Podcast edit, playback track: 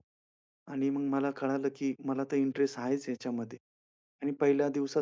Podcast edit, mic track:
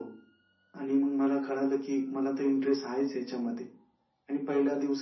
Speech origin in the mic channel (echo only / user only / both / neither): echo only